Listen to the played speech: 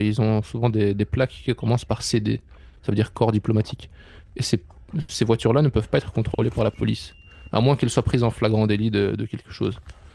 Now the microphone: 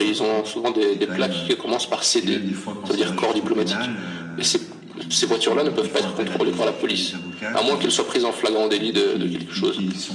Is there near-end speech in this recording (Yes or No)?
Yes